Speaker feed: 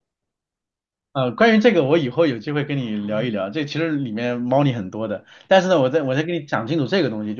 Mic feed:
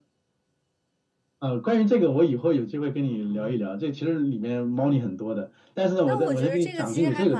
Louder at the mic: echo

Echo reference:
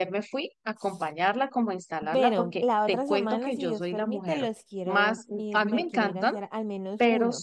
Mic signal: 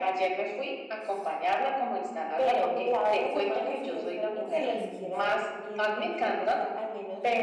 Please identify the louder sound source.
echo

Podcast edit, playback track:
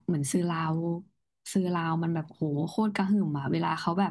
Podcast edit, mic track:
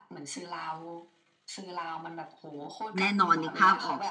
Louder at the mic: user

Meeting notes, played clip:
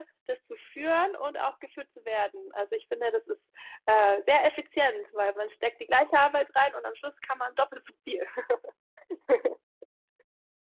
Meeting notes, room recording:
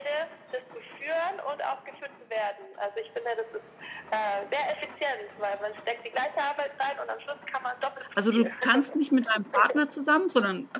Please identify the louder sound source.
user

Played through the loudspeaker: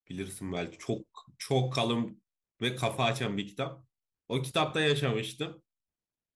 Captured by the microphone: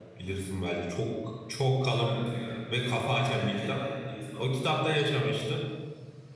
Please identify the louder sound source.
echo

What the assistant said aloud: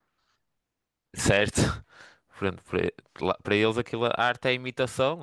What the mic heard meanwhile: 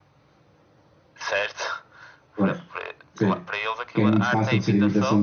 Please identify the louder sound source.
user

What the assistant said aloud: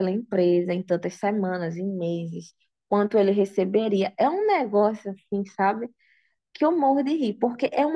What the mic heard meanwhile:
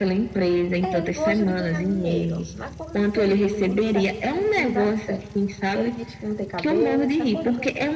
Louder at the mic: echo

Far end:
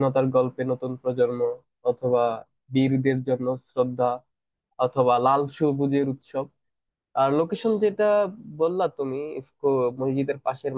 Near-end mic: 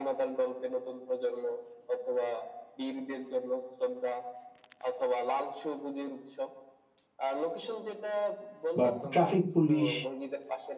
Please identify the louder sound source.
user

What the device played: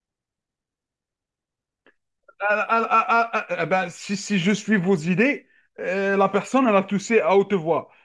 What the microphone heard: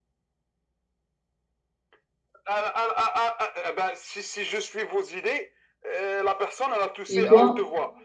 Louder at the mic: user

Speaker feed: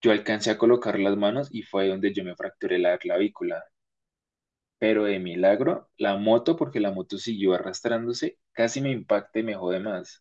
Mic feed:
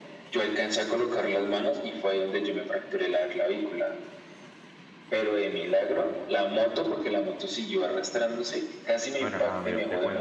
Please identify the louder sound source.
echo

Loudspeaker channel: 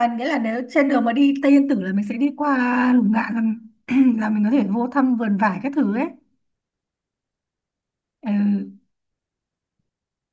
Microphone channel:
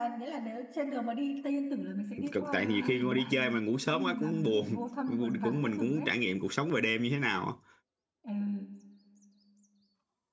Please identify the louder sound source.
user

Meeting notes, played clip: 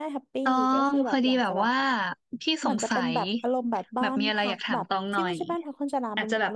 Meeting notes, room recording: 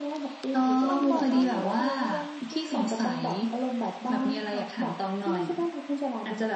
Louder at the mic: echo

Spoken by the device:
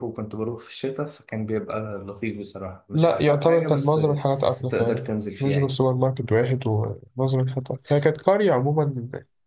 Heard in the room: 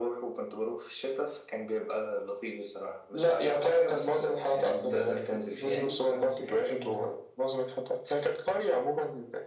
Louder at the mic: echo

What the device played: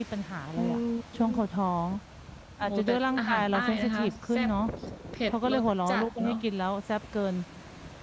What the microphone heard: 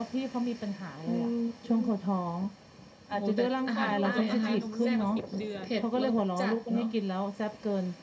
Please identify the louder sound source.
echo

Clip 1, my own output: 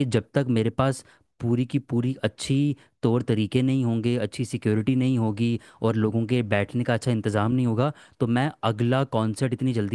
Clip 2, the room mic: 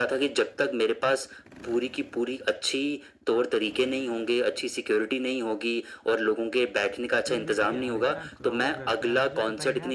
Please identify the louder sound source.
echo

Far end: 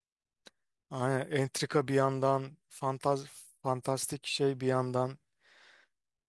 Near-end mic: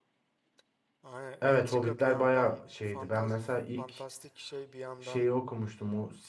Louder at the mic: user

